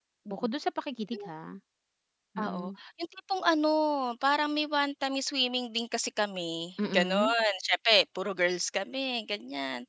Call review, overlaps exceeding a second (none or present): none